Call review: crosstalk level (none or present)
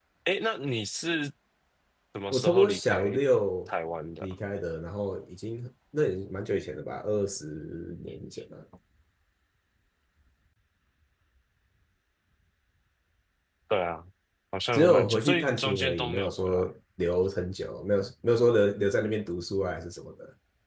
present